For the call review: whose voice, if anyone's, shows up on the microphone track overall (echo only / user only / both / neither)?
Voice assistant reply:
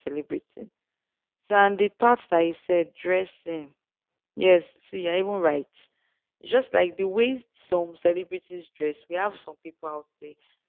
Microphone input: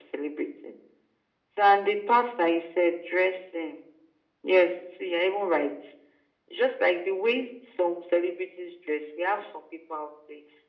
echo only